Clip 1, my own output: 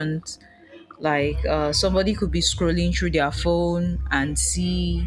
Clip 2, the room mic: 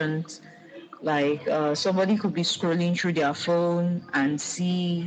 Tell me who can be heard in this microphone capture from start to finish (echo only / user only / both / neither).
echo only